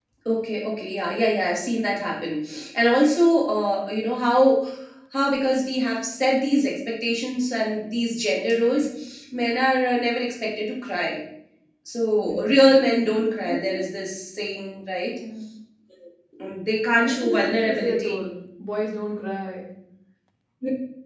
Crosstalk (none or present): present